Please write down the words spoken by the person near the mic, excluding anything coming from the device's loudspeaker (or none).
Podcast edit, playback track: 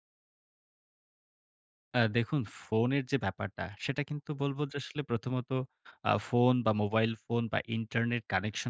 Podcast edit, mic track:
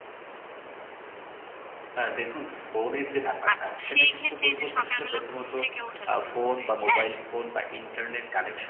আচ্ছা। তো সেইক্ষেত্রে এইযে সকালবেলা ঘুম থেকে ওঠা শুরু করে। হ্যাঁ?